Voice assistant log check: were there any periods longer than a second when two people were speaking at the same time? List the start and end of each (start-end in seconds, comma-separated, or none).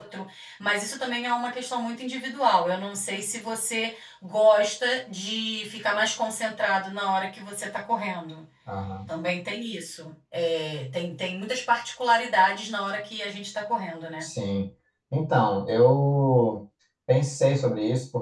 none